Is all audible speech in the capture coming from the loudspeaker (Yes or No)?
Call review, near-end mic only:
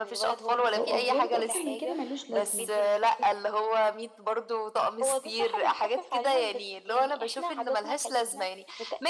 No